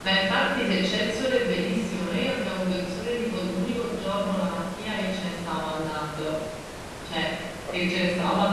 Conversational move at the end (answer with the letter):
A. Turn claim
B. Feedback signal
B